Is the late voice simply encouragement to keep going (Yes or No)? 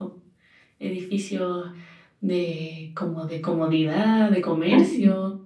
No